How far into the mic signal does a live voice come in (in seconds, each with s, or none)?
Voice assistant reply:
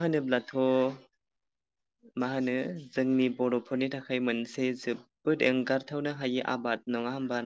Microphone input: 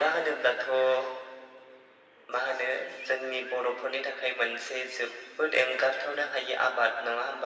none